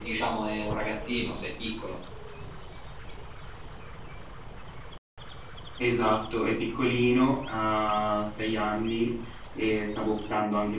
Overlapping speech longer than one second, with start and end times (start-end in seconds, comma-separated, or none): none